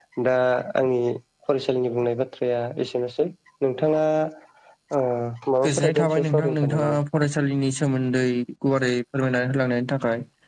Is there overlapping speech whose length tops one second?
Yes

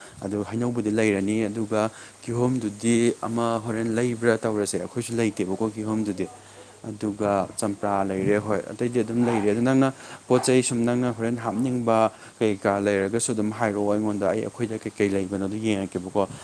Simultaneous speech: No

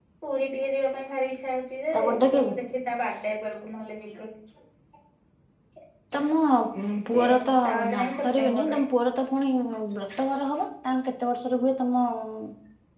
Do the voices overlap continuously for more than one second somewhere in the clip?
Yes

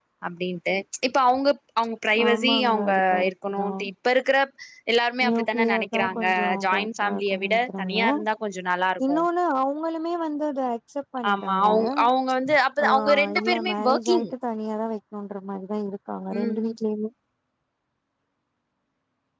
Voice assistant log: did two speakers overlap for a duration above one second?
Yes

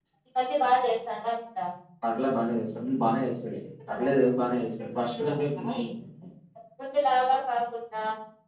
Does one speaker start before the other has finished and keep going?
No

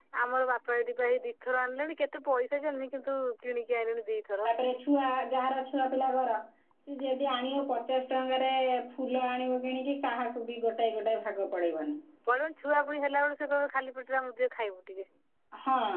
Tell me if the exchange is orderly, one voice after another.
Yes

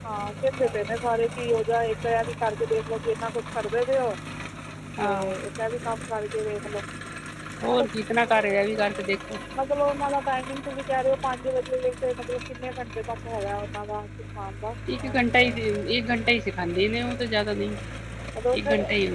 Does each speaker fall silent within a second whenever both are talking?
Yes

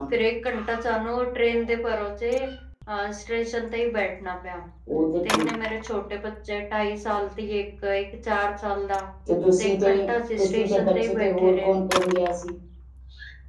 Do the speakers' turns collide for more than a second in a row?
Yes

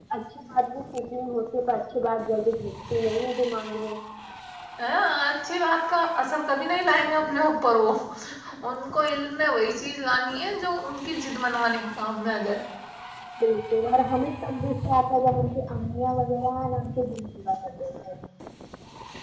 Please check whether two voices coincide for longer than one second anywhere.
No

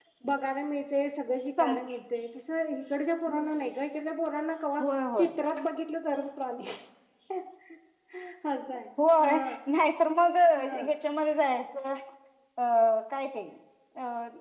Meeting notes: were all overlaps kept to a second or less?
Yes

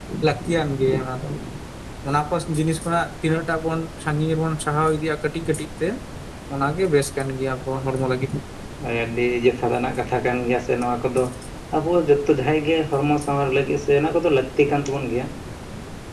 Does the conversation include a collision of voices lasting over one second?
No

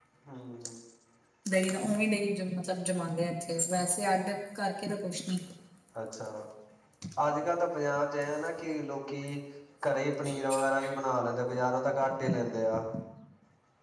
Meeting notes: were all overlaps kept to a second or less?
Yes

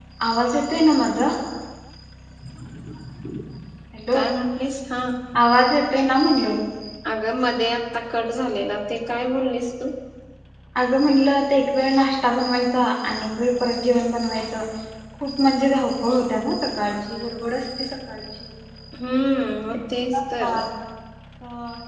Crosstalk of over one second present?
No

